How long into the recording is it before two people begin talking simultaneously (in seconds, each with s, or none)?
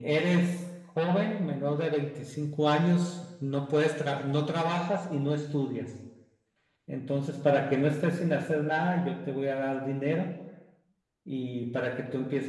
none